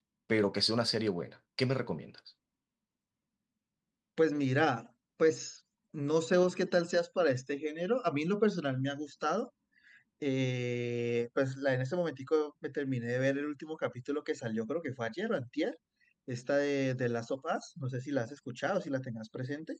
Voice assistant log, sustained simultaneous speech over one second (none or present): none